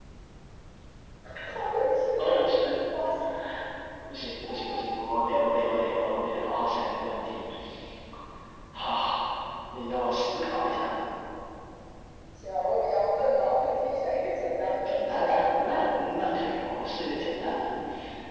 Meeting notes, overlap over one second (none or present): none